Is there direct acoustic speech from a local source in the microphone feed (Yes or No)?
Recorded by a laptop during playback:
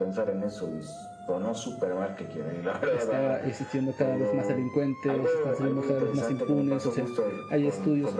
Yes